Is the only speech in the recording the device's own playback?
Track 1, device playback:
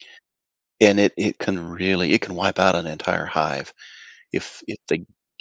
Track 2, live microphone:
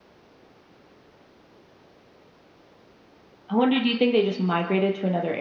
No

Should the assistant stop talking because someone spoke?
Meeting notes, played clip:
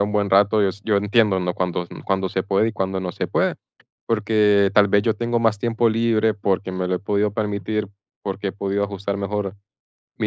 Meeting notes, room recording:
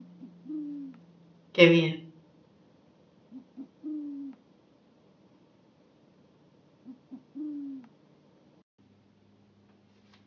Yes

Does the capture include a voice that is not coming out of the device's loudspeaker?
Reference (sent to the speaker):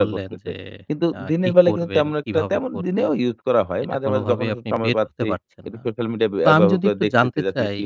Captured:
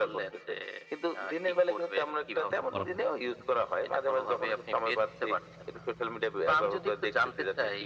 Yes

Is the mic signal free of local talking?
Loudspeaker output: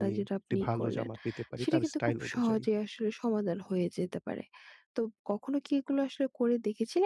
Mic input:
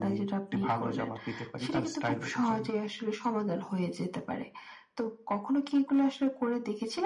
Yes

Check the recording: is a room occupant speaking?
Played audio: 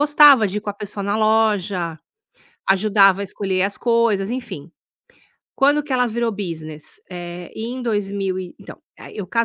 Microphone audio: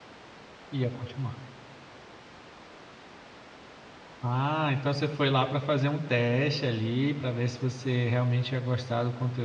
Yes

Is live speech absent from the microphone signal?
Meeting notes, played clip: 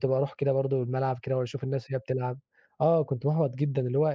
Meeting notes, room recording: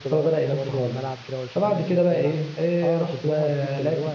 No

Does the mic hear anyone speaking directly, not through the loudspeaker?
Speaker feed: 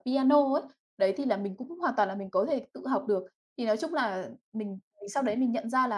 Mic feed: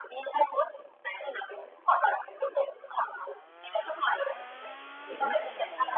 Yes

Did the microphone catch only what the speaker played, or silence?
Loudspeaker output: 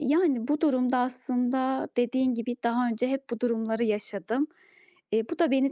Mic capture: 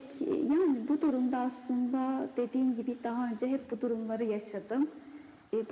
Yes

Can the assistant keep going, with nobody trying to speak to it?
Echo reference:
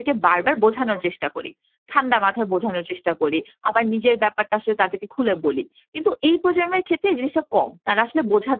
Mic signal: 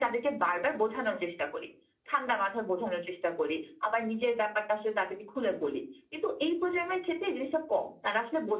Yes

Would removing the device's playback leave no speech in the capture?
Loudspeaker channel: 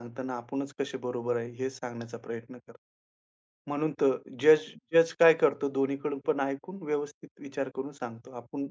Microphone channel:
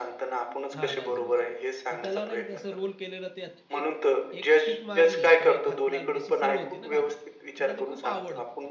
No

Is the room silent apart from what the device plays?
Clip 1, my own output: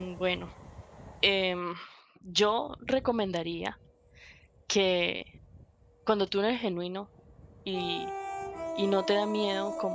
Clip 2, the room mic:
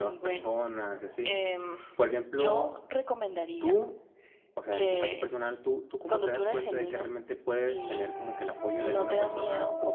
No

